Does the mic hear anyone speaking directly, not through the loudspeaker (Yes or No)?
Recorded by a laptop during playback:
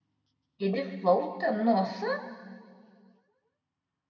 Yes